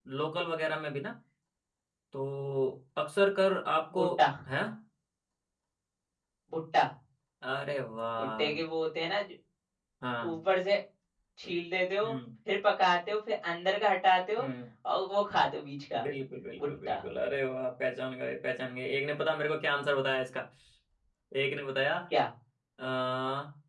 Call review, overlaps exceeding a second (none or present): none